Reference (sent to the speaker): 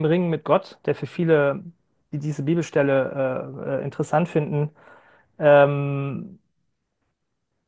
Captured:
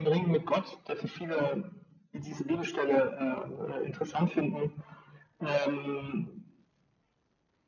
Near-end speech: none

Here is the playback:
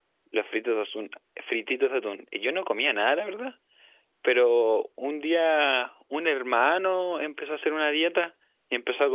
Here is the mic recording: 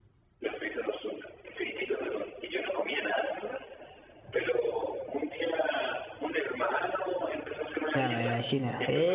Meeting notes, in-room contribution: present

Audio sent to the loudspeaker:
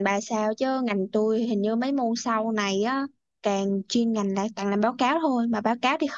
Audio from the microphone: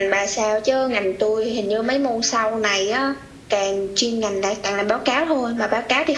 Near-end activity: none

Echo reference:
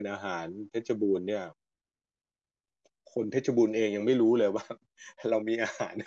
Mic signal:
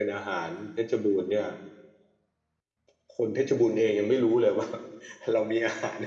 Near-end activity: none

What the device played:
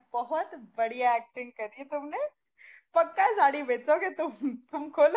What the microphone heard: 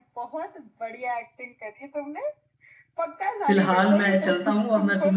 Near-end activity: present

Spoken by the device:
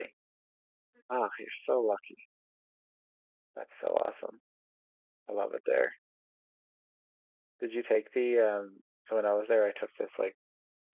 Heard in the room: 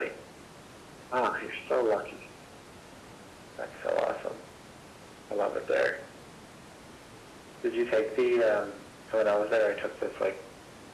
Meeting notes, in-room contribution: none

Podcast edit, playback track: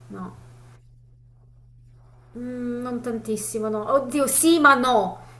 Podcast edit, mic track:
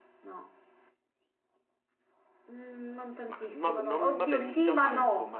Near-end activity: present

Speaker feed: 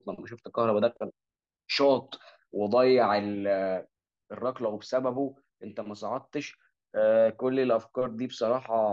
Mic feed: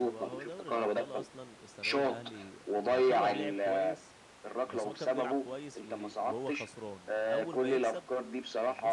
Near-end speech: present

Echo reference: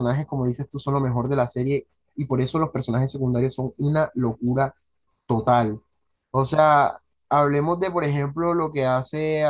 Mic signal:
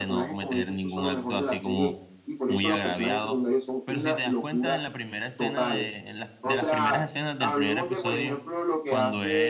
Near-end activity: present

